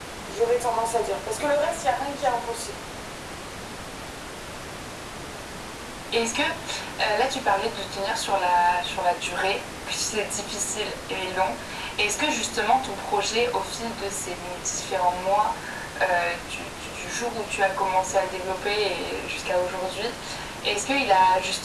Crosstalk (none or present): none